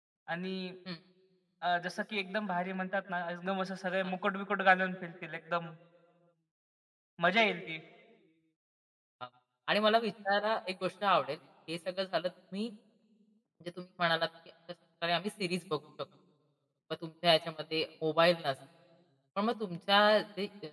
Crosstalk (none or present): none